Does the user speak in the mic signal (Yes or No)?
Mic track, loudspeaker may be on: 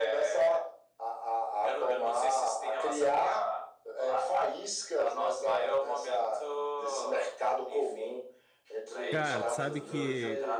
Yes